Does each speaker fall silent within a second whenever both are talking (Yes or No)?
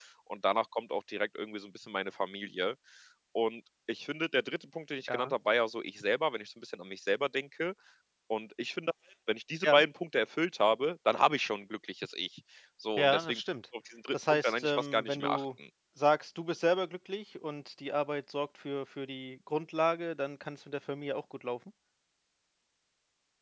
No